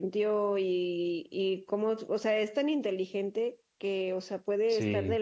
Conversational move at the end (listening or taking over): listening